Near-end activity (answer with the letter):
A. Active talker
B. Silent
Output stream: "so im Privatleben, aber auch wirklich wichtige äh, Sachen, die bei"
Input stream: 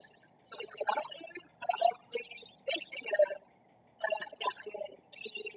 B